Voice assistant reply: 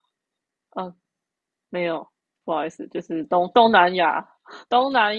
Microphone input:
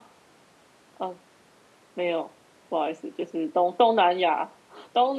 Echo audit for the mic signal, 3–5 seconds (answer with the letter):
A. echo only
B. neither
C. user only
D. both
A